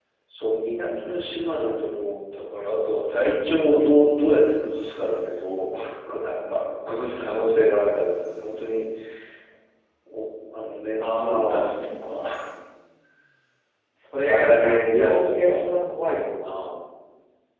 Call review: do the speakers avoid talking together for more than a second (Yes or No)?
No